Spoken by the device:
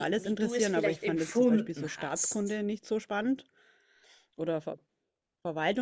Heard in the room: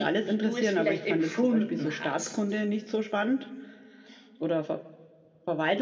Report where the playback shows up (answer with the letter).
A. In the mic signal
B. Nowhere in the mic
A